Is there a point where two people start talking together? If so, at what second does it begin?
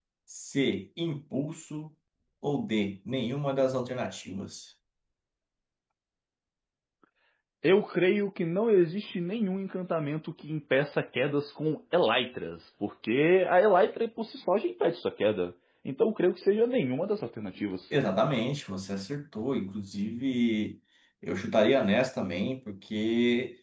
none

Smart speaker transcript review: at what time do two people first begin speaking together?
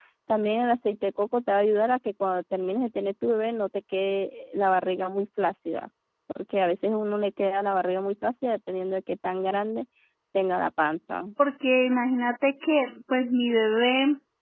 none

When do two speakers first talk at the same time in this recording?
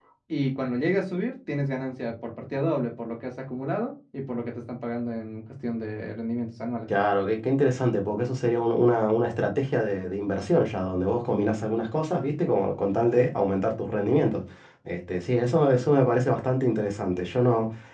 none

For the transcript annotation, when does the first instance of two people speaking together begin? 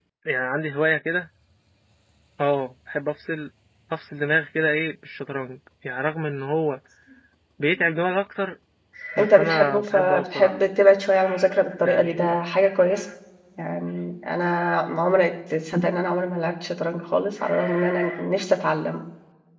9.2 s

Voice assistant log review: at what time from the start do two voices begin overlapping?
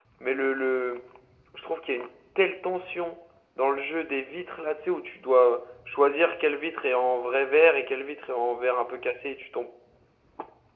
none

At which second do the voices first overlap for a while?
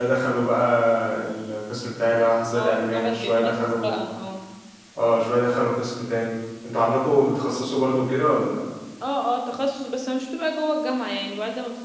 2.5 s

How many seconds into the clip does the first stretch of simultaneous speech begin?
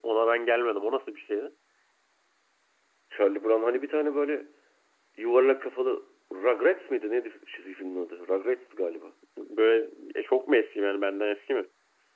none

